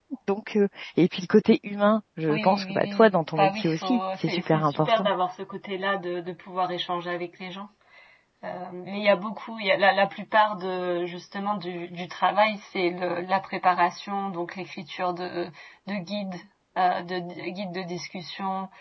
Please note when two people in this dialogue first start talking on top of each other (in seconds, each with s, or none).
2.3 s